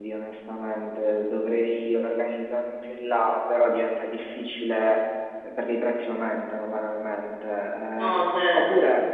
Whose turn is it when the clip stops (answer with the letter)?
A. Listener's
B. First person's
B